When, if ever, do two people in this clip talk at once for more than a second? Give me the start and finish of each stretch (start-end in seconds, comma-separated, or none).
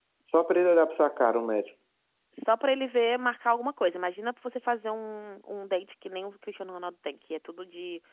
none